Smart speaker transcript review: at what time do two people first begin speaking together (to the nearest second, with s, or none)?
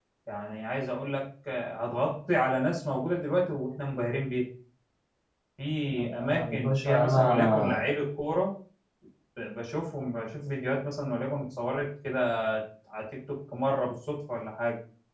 6 s